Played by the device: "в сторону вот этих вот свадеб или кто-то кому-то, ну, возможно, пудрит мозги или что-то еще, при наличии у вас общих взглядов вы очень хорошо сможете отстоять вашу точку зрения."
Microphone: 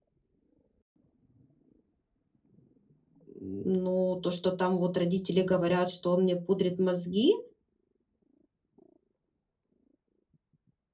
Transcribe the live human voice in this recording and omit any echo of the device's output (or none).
ну, то, что там вот родители говорят, что он мне пудрит мозги,